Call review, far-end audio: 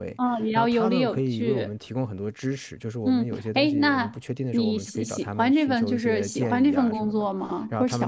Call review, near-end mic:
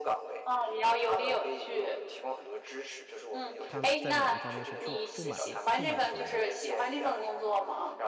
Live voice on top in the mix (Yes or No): No